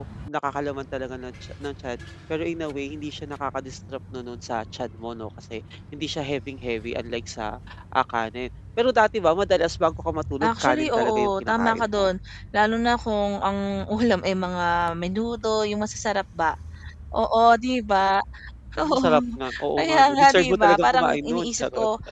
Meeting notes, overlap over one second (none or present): present